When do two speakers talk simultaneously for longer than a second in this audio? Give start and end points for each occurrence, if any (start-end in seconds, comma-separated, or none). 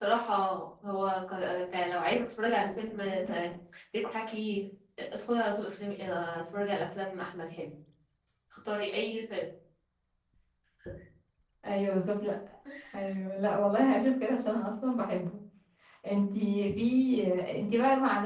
none